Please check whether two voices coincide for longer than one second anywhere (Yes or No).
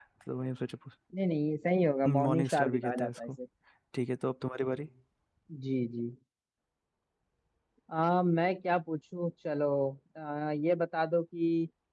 Yes